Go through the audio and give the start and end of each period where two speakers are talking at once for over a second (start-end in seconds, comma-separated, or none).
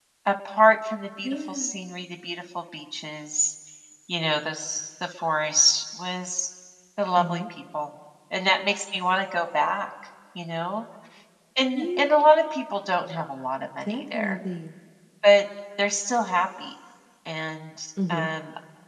none